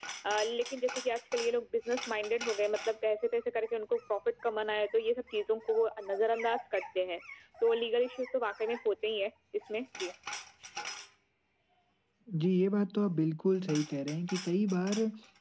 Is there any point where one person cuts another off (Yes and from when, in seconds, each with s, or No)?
No